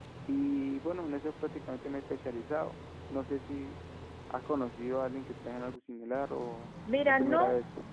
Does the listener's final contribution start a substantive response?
Yes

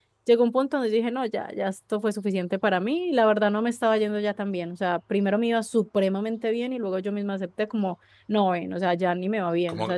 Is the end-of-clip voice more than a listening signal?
Yes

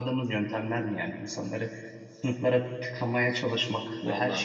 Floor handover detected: No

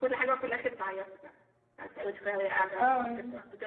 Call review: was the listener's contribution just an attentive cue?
Yes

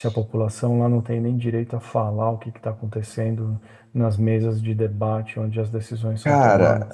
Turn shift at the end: Yes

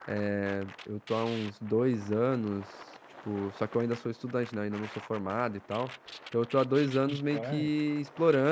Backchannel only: Yes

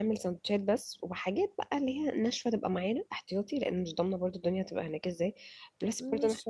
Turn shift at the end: No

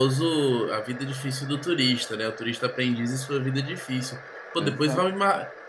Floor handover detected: No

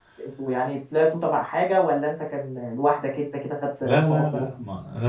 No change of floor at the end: No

